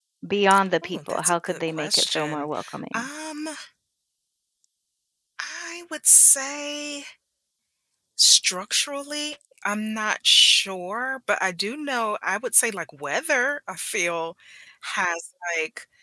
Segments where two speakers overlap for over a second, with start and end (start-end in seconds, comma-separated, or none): 0.8-2.5